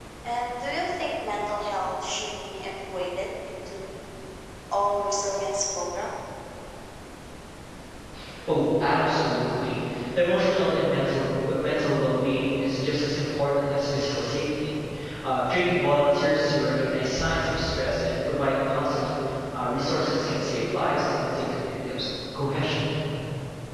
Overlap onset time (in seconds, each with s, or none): none